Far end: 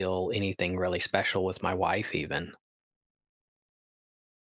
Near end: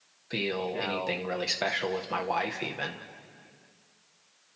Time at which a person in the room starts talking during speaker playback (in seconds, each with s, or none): 0.7 s